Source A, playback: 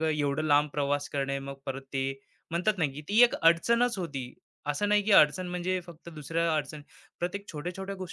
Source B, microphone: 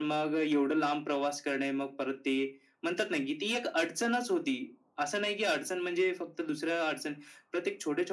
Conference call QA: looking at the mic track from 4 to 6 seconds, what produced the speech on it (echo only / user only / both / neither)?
echo only